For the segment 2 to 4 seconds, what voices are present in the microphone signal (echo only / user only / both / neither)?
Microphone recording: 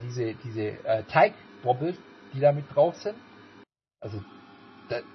user only